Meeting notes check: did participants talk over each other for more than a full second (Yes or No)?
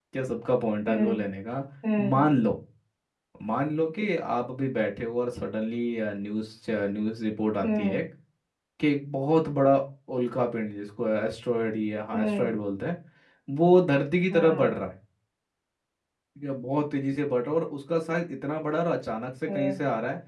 No